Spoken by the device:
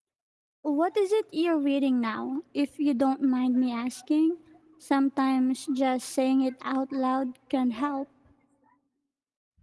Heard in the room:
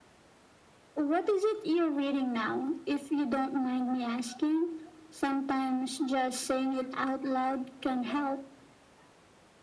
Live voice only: none

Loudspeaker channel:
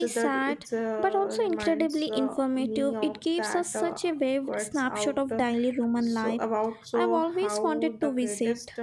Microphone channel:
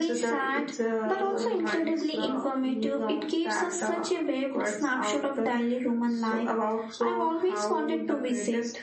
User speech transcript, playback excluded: in your work?

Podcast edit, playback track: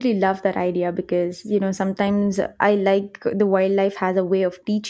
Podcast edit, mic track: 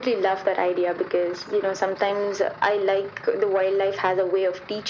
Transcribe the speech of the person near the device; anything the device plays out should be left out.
none

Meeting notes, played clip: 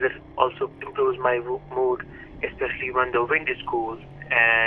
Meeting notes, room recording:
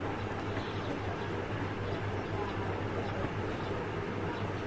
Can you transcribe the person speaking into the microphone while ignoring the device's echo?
none

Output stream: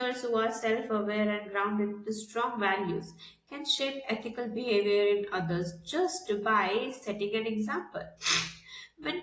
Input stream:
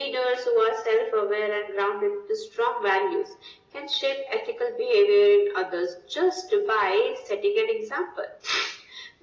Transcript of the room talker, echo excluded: none

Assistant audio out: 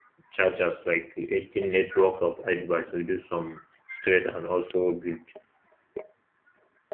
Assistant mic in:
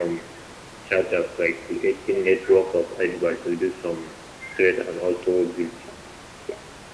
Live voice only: none

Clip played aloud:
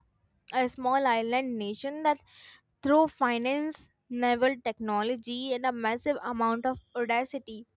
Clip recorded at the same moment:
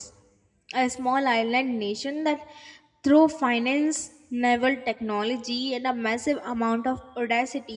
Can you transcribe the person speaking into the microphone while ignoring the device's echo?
none

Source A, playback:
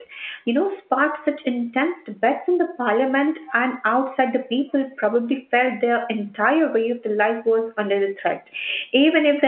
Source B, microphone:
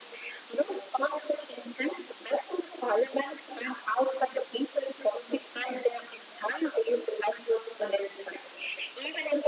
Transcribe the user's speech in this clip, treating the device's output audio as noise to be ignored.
none

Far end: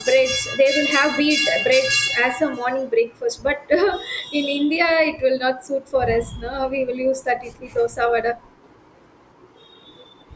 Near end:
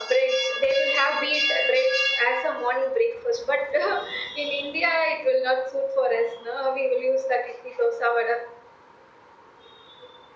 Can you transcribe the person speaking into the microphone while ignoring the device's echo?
none

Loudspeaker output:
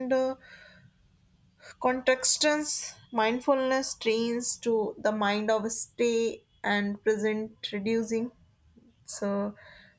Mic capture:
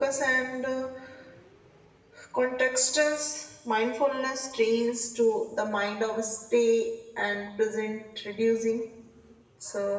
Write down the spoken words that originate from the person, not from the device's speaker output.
none

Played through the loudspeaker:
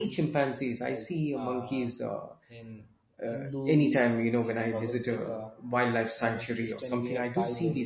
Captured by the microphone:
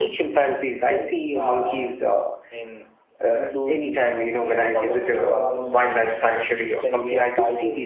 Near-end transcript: you know what we see

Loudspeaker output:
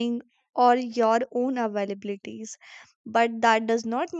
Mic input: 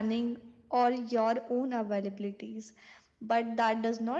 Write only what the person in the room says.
none

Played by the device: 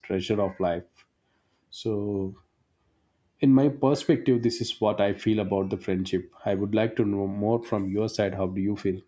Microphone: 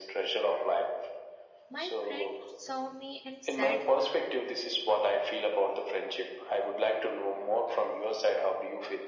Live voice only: My friend saw me and said,

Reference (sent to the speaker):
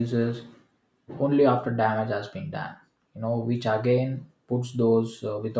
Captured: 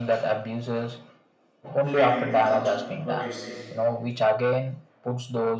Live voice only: freedom of thought. What do you say?

